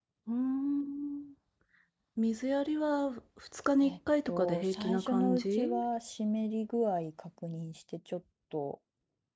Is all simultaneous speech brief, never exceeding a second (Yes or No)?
No